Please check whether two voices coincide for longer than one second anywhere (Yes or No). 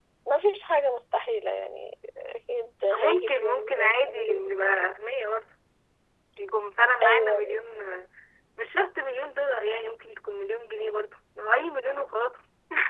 Yes